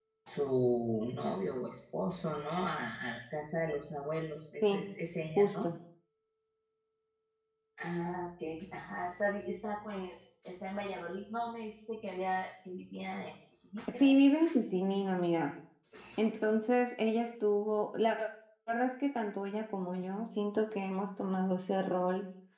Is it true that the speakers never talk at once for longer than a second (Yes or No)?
Yes